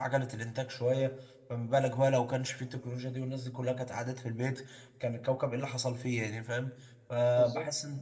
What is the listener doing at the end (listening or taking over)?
listening